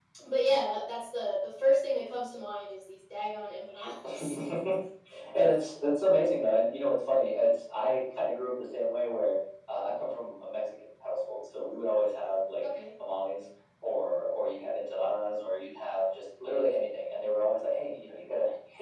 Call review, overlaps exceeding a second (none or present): none